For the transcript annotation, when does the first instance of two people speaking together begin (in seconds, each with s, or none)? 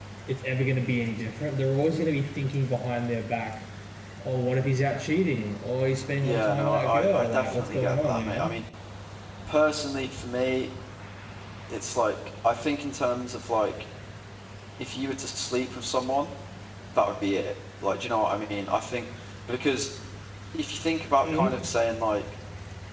6.2 s